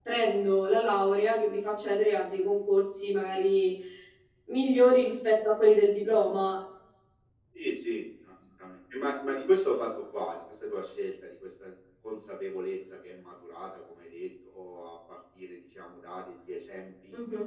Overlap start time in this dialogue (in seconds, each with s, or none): none